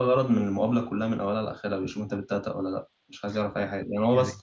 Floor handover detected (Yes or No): No